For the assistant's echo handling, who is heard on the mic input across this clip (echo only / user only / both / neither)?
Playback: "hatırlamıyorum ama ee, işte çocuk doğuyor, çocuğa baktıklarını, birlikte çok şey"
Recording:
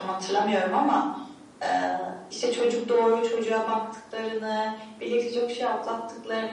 echo only